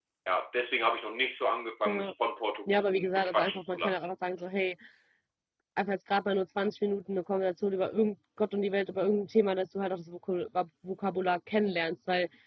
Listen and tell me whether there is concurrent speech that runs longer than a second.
Yes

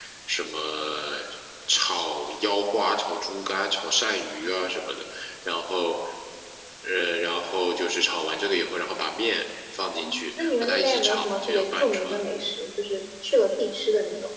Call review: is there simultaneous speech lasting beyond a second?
Yes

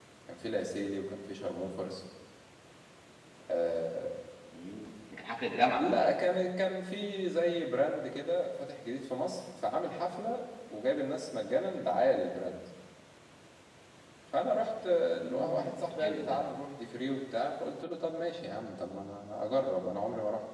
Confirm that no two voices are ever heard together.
No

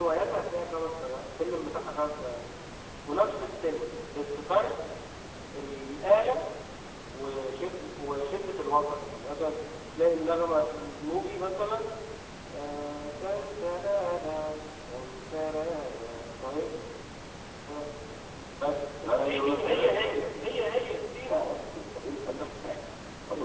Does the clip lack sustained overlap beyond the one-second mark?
No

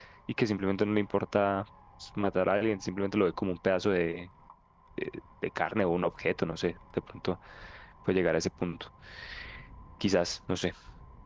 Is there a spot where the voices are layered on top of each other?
No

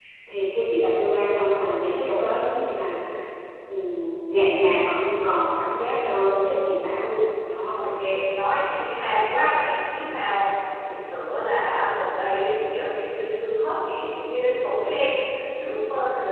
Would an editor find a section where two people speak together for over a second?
No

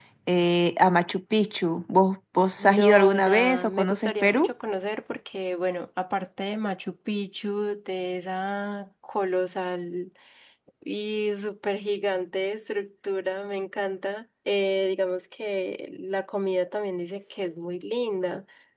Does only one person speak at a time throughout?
No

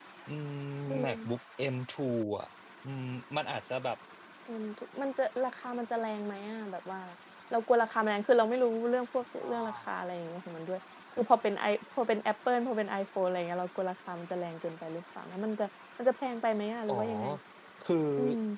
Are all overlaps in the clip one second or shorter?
Yes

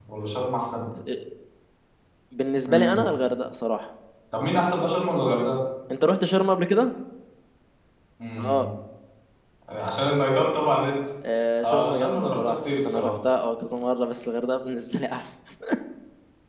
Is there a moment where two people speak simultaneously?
Yes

